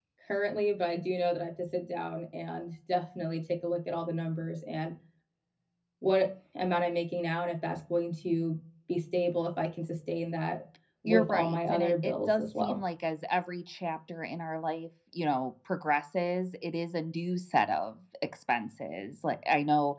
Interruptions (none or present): present